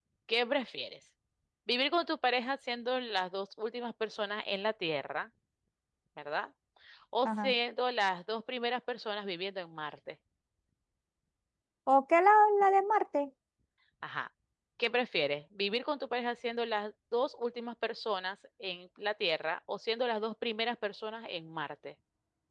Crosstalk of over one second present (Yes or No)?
No